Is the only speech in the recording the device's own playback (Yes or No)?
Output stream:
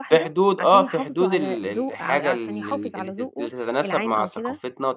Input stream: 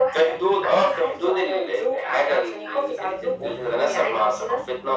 Yes